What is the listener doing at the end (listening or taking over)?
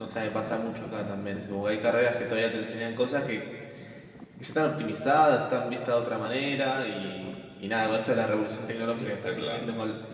listening